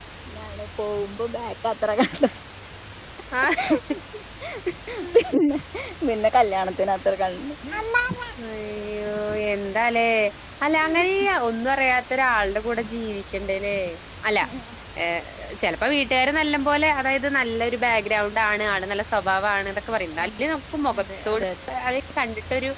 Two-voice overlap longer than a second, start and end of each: none

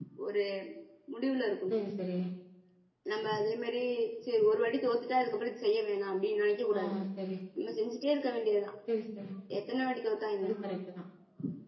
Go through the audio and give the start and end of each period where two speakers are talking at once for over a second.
none

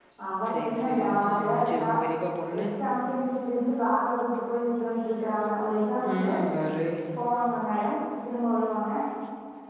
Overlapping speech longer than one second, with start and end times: 0.5-1.9

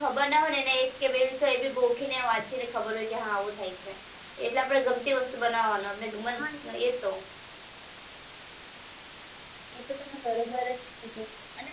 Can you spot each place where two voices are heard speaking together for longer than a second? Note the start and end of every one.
none

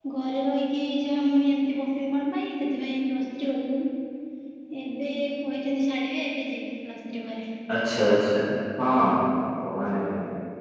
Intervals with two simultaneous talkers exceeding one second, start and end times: none

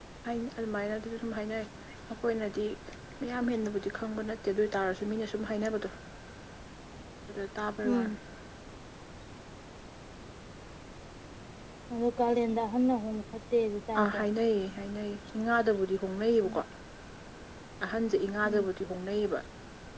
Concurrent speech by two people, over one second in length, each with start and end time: none

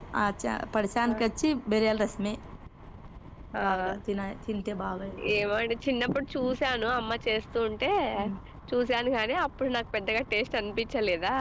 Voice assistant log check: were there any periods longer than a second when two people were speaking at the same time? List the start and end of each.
none

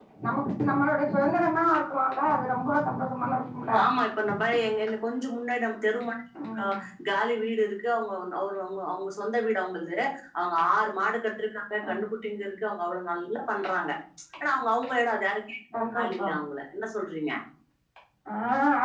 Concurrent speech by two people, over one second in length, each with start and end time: none

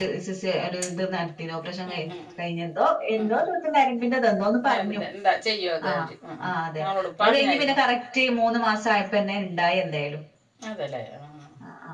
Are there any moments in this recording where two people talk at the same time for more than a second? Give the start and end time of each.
6.5-7.8

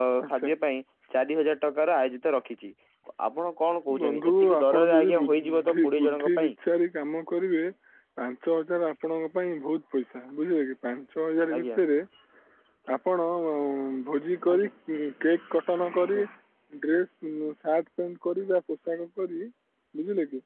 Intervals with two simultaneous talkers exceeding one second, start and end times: 4.0-6.5

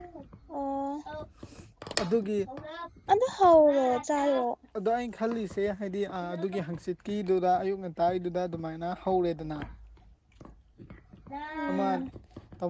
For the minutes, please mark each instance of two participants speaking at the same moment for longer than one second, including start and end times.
none

